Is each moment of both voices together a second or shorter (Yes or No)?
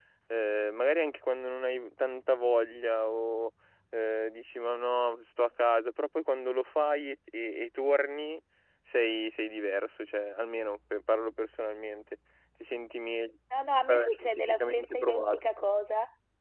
No